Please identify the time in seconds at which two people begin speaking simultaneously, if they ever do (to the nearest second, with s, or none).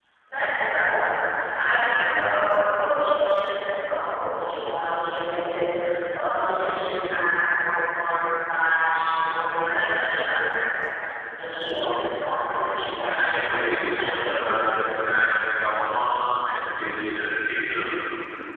13 s